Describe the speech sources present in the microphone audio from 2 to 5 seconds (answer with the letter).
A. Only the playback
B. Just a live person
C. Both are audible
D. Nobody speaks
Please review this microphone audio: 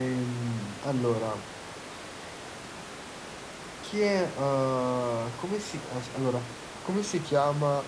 B